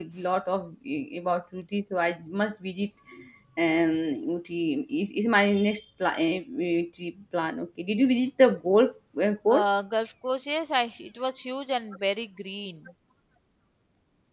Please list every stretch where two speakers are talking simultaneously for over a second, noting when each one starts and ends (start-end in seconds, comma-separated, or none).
none